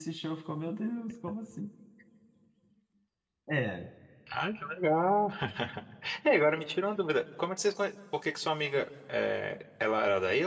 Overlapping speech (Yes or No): No